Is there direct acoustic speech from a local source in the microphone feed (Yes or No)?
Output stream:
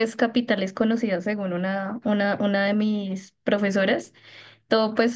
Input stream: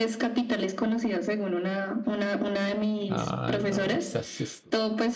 Yes